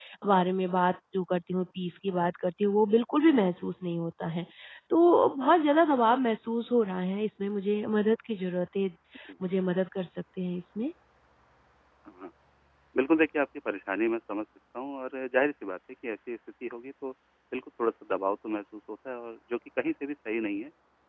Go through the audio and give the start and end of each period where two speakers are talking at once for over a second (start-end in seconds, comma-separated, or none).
none